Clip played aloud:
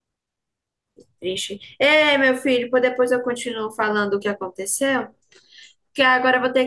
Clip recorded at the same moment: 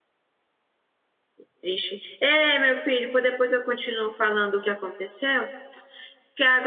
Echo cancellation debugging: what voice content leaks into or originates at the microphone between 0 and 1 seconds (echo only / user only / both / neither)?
neither